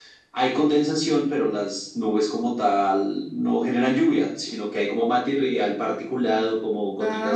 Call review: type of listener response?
listening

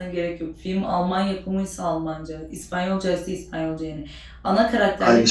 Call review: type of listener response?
listening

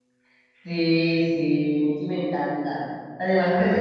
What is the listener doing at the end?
listening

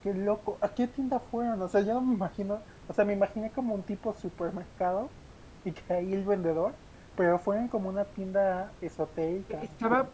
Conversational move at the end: taking over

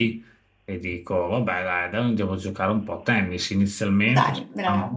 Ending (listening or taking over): listening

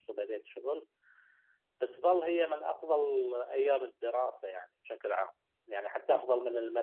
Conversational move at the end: listening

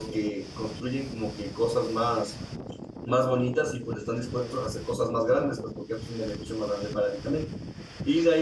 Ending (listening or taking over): listening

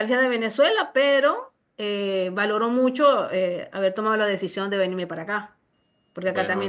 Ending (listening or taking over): listening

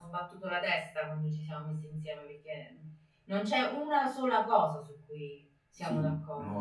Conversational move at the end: taking over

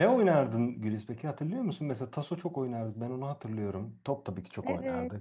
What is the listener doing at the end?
taking over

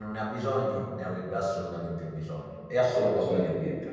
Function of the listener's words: taking over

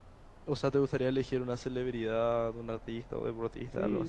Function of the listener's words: taking over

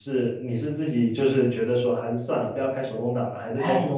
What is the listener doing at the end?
taking over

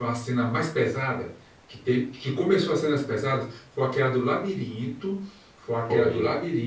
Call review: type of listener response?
listening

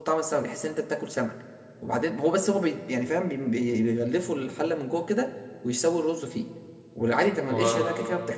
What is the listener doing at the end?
listening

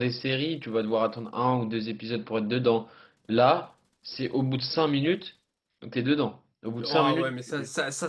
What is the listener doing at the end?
taking over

